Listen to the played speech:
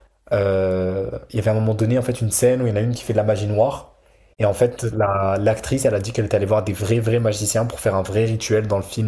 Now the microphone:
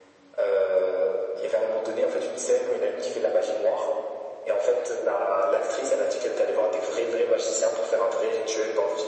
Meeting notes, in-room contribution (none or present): none